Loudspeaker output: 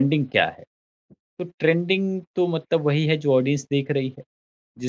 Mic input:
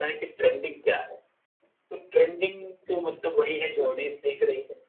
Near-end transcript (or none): जी, जी,